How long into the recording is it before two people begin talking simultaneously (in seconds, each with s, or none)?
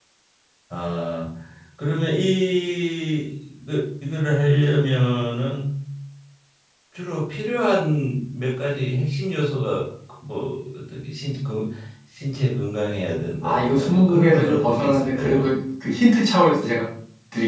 13.4 s